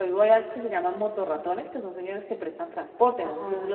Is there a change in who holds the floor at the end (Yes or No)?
Yes